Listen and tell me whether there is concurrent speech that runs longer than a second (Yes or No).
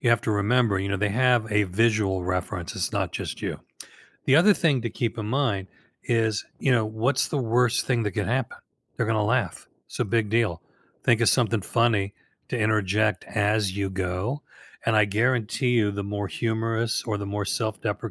No